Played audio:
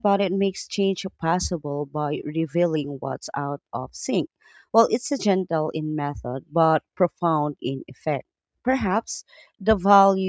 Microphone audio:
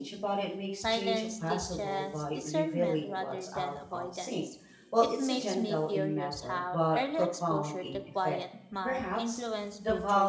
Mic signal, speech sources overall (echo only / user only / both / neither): both